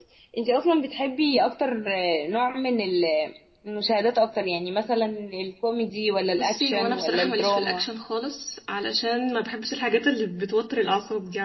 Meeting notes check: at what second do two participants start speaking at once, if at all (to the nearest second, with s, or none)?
6 s